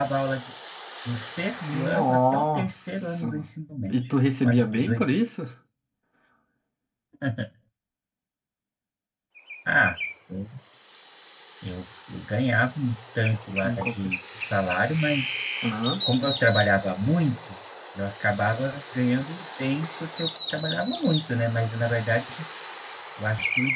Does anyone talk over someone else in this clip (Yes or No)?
Yes